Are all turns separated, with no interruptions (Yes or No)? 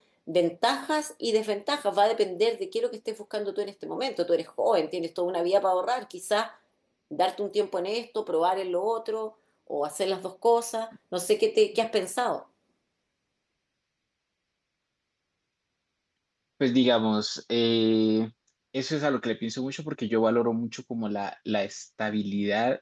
Yes